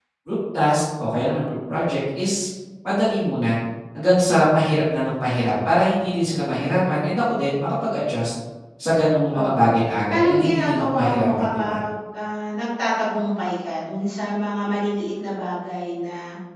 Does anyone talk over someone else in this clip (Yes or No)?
Yes